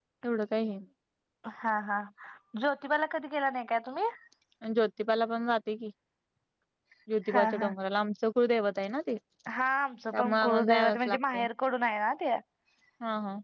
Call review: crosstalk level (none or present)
present